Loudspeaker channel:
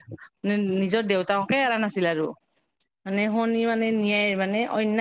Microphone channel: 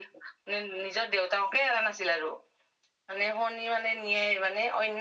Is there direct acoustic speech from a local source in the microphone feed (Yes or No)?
No